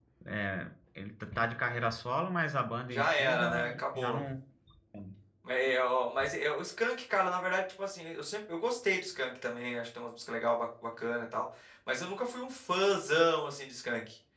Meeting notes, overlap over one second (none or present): present